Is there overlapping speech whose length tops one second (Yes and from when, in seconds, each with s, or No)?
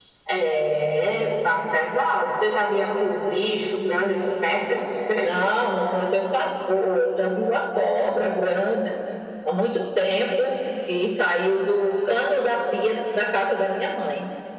No